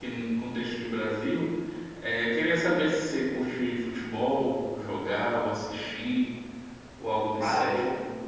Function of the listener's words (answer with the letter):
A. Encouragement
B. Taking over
B